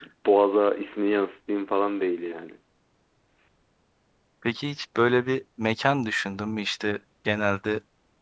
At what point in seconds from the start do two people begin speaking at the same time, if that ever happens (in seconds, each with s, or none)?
none